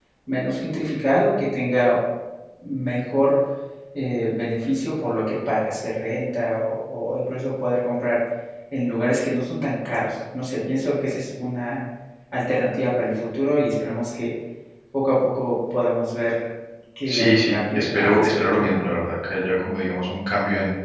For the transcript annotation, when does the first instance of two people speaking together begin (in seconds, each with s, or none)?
17.1 s